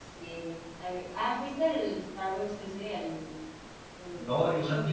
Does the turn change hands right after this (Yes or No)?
Yes